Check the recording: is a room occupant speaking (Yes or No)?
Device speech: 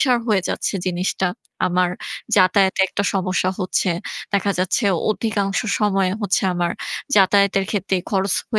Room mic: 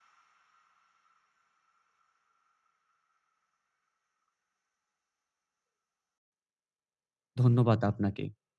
Yes